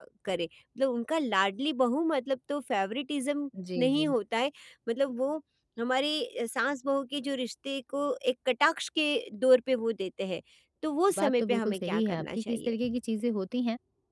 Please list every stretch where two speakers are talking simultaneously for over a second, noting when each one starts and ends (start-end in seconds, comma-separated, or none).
11.2-12.7